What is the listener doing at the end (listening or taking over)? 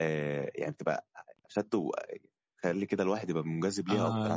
taking over